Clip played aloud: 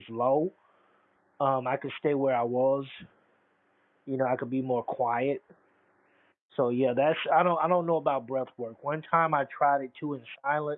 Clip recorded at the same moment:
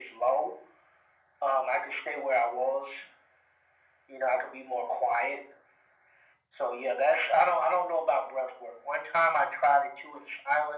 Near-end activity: none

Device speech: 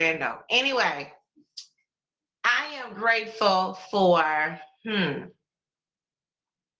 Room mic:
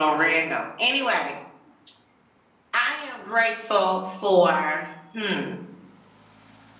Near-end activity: none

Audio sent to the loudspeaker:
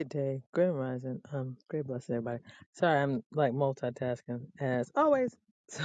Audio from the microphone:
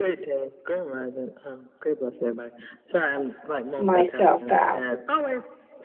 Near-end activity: present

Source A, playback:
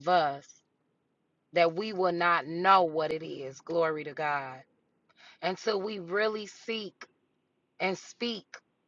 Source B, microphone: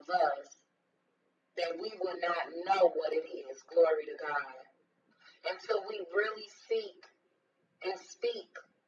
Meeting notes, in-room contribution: none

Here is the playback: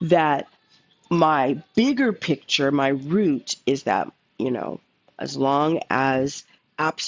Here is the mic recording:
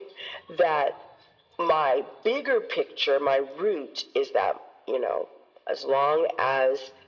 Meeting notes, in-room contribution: none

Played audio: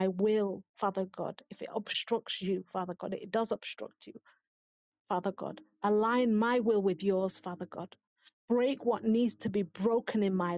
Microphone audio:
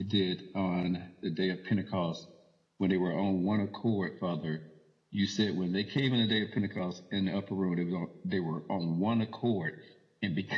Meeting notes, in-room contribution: present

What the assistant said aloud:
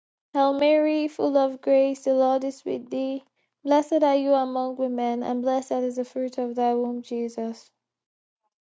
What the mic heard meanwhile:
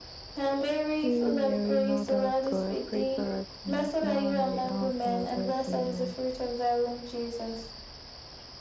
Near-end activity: present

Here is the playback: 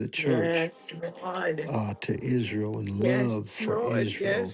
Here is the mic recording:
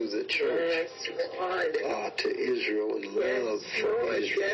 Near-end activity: none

